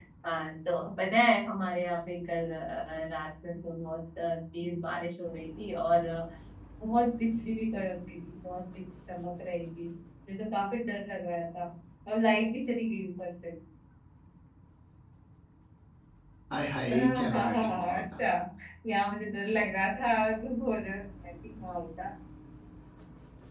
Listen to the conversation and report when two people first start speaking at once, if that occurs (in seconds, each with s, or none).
16.9 s